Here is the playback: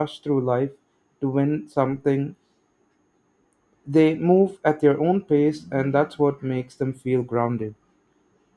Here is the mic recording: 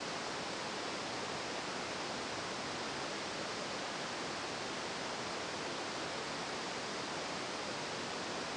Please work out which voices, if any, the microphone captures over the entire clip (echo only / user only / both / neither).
neither